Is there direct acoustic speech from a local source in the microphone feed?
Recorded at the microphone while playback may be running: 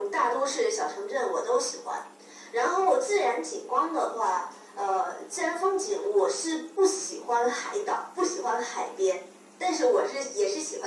No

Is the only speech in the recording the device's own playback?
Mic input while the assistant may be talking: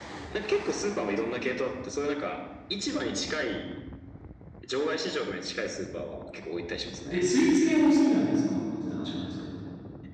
No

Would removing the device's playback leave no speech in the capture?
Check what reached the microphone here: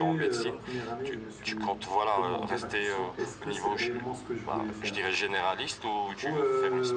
No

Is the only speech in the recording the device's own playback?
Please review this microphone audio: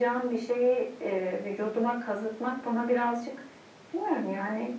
Yes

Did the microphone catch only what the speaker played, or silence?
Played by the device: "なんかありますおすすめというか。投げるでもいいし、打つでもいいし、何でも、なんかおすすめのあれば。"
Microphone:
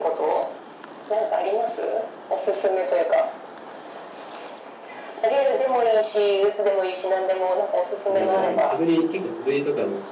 No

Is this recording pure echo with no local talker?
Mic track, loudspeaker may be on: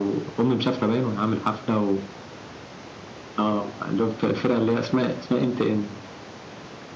Yes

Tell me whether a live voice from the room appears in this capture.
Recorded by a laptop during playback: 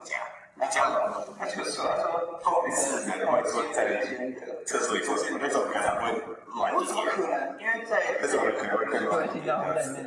Yes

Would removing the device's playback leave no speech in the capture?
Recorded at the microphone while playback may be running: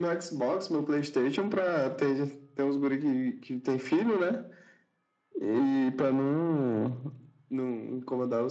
Yes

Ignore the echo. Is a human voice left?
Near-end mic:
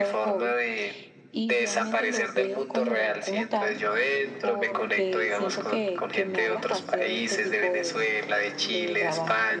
Yes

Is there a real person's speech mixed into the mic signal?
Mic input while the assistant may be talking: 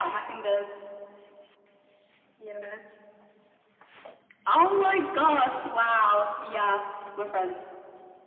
No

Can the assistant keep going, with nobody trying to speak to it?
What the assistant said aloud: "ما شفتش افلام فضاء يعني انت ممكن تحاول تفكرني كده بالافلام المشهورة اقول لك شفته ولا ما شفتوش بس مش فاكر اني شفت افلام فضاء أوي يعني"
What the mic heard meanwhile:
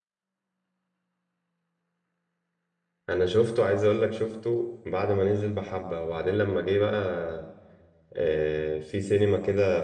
No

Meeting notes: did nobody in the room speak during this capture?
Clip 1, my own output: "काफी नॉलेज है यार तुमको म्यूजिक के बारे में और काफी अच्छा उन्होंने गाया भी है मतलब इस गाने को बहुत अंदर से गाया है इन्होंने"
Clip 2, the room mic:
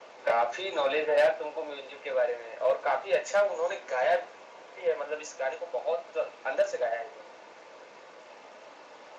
Yes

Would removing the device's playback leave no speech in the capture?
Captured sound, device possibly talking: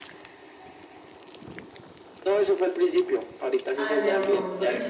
No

